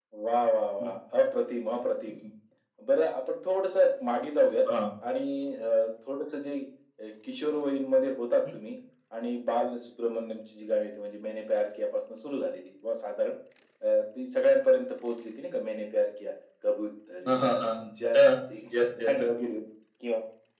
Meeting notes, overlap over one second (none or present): none